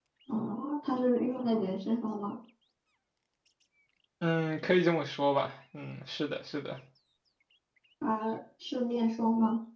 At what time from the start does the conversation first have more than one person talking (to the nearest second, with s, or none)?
none